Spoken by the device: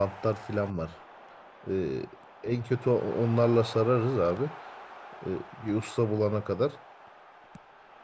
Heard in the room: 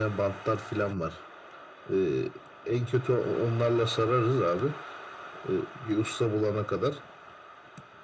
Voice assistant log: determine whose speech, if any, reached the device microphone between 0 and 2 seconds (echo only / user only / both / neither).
echo only